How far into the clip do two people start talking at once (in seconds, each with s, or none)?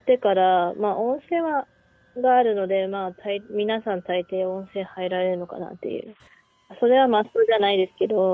none